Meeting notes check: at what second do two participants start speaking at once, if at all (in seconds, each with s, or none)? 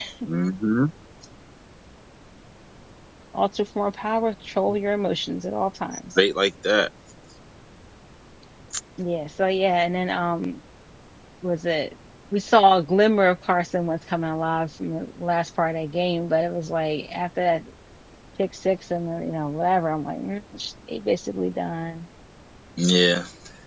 none